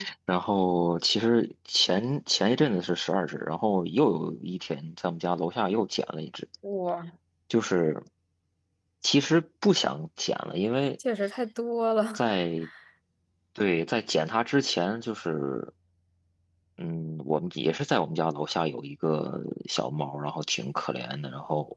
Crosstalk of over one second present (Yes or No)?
No